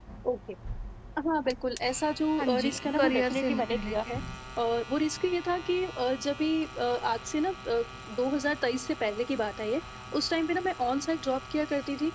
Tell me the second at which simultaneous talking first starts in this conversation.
2.4 s

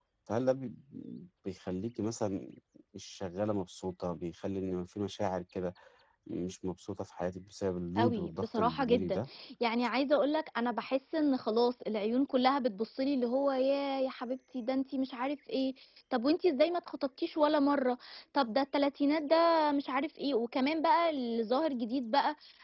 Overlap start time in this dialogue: 8.0 s

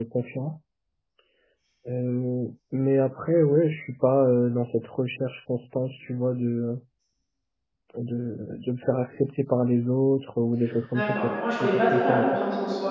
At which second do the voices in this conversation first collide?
10.9 s

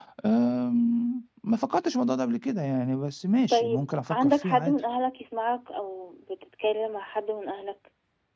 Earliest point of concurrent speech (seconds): 3.5 s

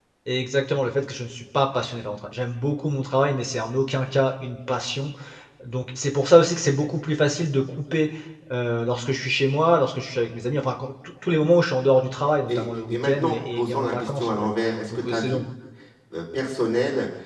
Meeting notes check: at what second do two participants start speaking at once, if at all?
12.5 s

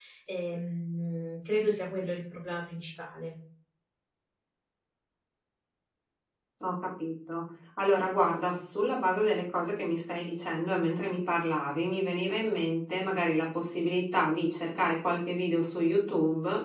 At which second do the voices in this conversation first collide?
none

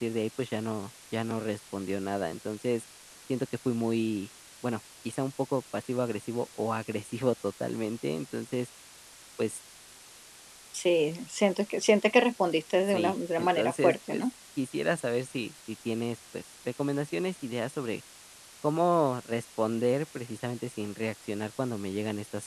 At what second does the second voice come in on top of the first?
12.9 s

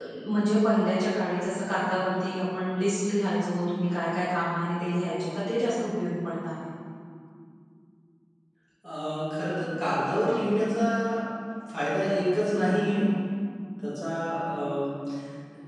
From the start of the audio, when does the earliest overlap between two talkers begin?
none

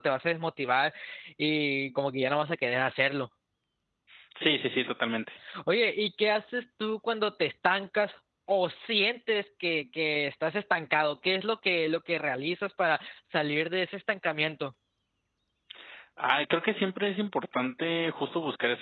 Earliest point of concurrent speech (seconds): none

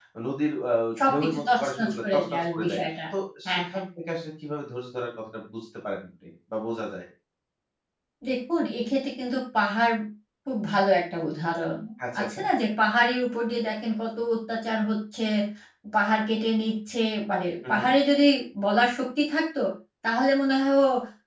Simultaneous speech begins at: 1.1 s

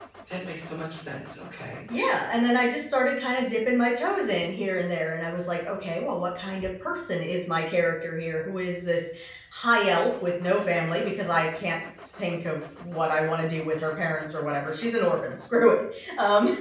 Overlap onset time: none

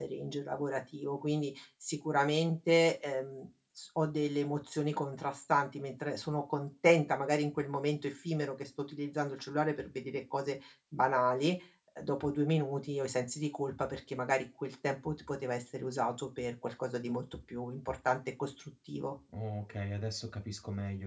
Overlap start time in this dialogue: none

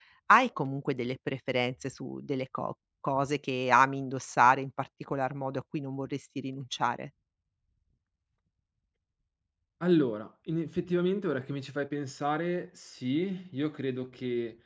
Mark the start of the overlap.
none

